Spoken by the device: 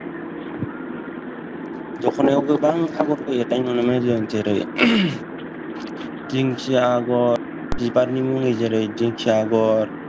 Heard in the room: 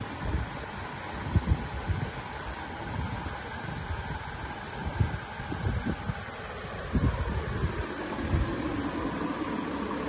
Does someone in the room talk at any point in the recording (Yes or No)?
No